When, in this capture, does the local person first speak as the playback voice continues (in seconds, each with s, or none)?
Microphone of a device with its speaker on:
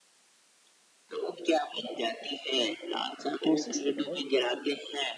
3.4 s